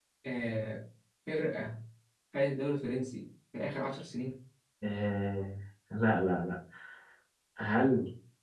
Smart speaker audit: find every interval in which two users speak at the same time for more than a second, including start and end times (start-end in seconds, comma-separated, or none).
none